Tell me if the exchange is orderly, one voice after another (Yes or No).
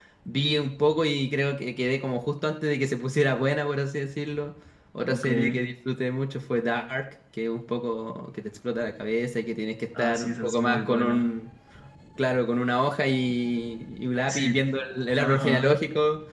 No